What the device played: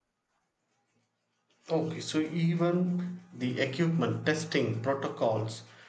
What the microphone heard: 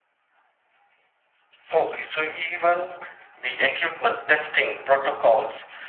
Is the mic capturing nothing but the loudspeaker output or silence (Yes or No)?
Yes